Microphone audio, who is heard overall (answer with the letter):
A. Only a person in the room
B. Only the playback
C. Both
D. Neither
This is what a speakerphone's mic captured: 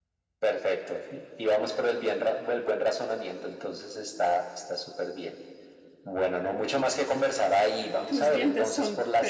C